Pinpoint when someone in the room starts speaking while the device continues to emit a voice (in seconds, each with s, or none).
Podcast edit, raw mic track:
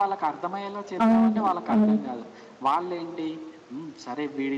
1.0 s